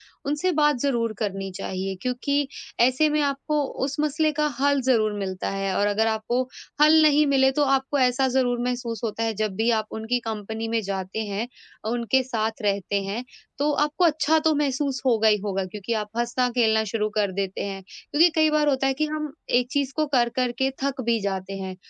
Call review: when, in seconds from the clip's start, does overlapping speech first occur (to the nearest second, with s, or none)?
none